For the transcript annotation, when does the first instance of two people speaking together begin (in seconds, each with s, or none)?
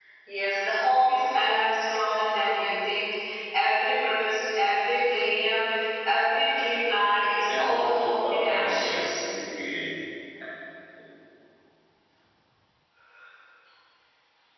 7.5 s